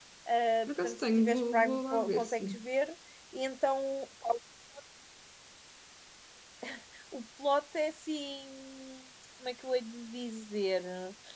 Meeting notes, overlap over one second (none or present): present